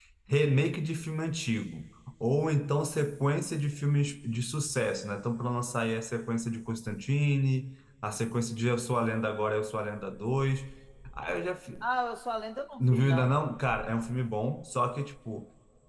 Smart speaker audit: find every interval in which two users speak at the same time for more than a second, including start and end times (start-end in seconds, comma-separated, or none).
none